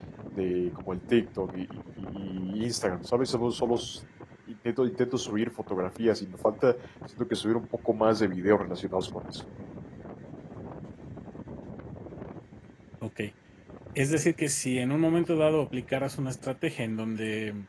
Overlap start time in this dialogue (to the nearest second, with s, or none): none